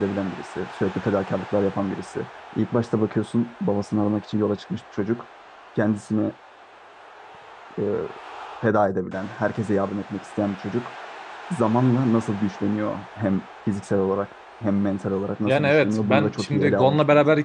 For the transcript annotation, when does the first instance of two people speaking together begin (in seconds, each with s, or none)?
15.5 s